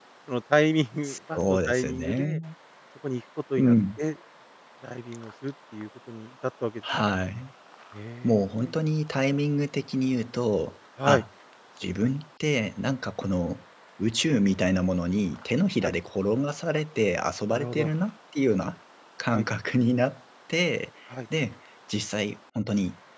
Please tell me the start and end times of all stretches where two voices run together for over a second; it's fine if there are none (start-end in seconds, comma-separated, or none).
1.0-2.4